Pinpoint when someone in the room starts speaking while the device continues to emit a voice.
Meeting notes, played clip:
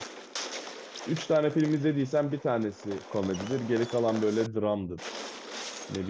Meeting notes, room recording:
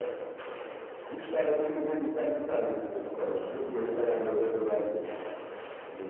none

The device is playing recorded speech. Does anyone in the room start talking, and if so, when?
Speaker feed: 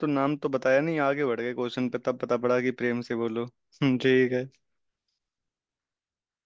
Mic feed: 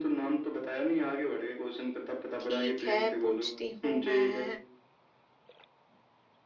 2.4 s

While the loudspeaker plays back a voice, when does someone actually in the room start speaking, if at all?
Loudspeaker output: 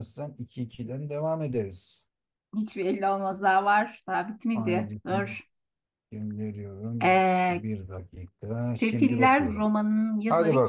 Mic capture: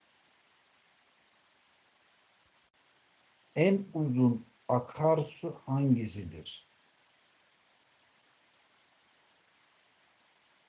3.5 s

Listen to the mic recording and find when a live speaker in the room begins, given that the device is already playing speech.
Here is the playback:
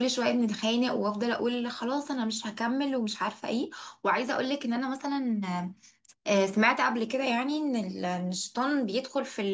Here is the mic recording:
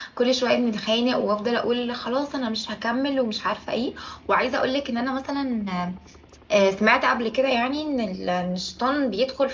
none

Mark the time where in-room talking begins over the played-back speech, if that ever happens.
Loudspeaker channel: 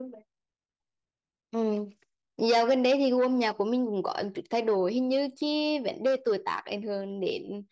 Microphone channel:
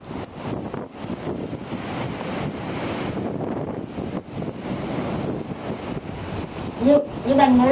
6.8 s

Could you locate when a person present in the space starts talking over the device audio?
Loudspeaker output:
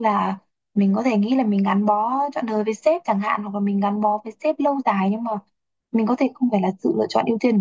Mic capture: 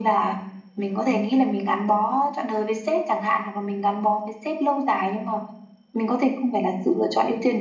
none

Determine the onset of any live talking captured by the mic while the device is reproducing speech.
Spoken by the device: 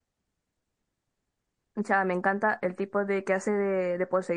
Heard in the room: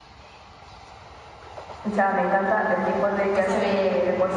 3.3 s

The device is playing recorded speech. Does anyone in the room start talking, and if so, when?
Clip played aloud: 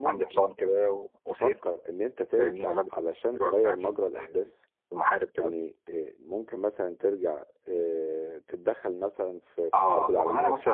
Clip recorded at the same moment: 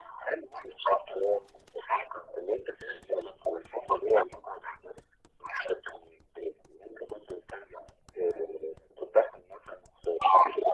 none

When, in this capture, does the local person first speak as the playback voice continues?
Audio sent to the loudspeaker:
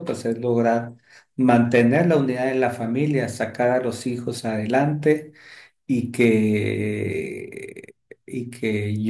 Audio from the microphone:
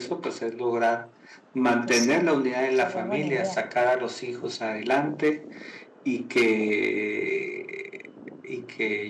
1.8 s

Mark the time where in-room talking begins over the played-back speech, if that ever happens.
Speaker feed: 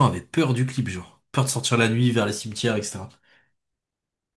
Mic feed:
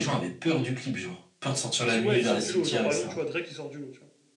1.7 s

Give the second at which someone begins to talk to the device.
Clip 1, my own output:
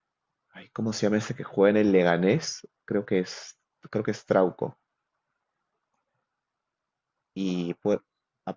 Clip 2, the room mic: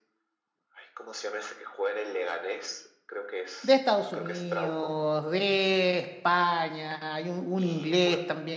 3.6 s

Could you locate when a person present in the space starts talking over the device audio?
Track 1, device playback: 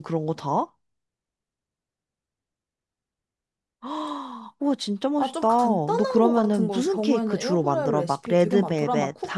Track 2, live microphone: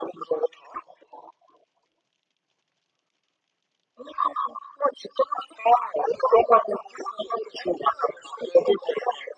none

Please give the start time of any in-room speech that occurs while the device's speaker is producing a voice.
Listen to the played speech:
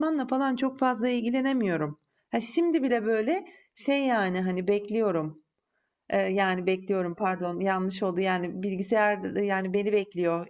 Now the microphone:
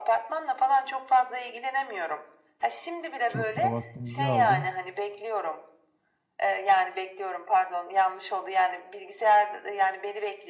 3.3 s

